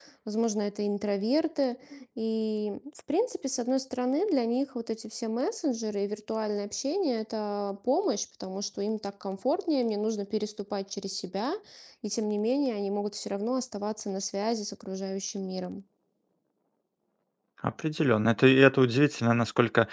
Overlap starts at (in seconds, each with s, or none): none